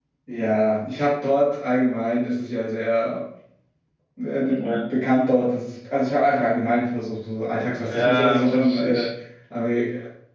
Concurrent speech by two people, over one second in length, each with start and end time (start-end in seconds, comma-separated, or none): 7.8-9.1